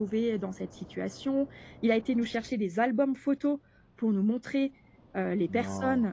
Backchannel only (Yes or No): Yes